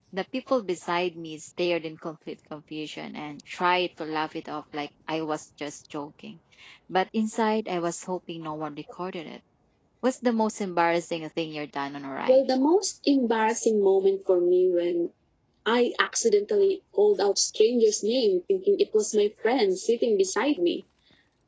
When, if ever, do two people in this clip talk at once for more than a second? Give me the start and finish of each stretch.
none

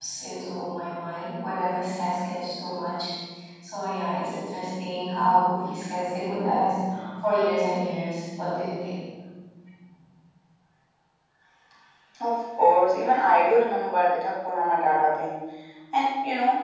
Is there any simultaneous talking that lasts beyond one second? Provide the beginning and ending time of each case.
none

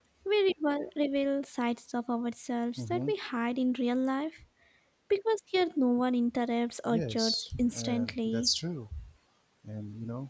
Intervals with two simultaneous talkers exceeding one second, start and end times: 6.8-8.5

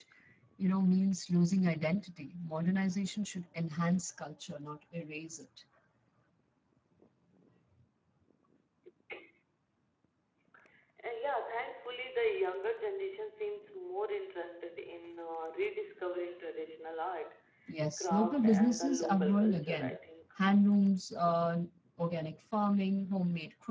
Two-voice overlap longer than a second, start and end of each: 18.0-20.0

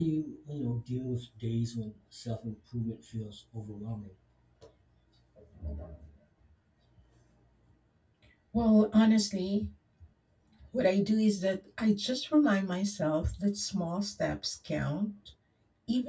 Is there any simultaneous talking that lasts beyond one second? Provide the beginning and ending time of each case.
none

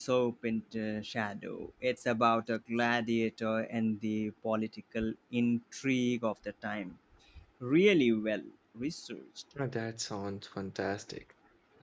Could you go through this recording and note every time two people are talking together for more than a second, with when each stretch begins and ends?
none

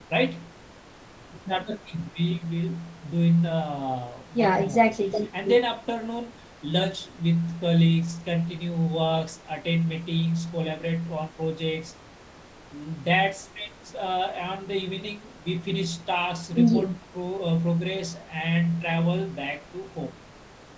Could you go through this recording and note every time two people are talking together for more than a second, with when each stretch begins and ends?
4.4-5.6

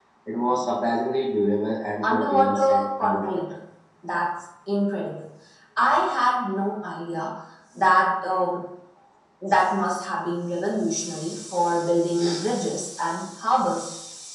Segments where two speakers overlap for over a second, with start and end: 2.0-3.4

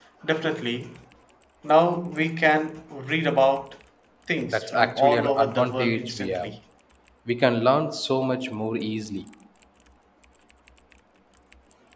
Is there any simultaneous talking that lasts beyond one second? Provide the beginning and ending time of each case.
4.5-6.5

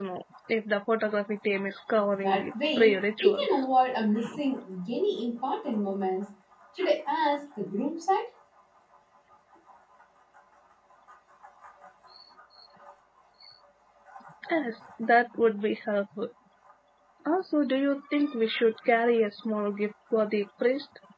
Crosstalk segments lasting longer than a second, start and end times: 2.2-3.5

